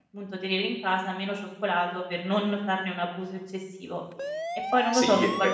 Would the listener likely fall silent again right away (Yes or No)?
No